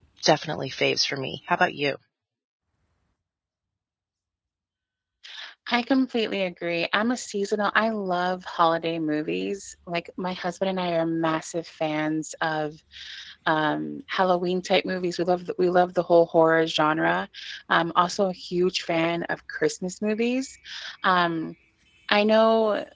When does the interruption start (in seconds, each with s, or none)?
none